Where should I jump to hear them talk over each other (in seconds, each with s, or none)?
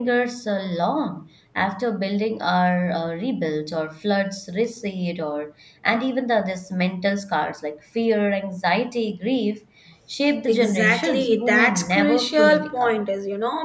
10.5 s